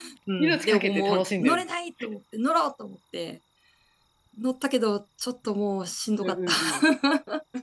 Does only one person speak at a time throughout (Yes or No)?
No